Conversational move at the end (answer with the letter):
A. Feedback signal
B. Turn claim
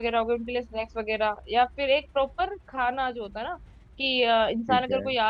A